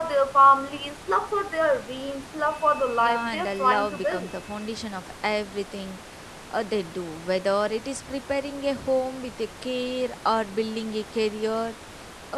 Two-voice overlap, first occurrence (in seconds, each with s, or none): 3.0 s